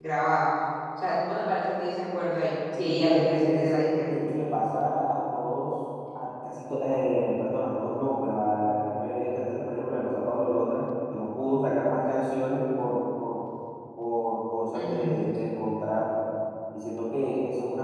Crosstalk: present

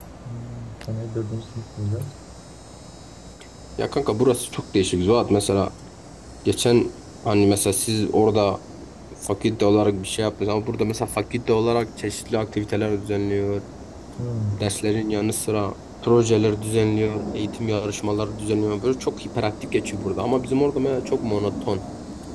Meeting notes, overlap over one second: none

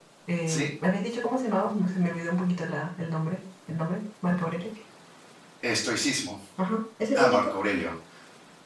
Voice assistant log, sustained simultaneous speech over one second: none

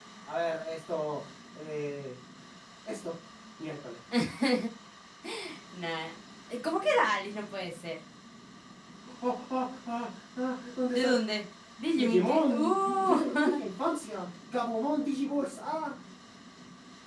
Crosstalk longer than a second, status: present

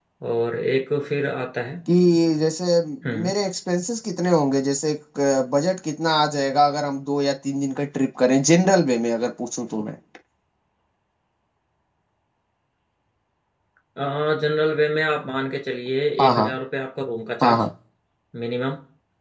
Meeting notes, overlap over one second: none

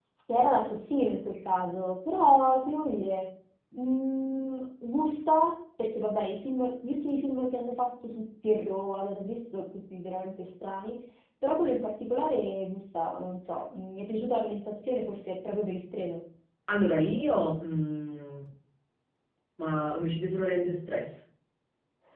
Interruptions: none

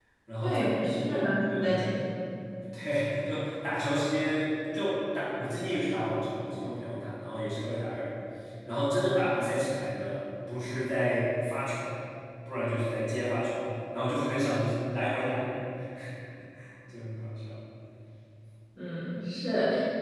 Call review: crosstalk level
present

